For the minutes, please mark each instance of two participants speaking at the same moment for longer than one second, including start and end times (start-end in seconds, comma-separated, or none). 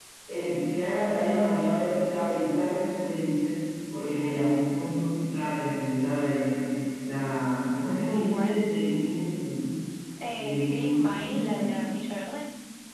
10.3-11.7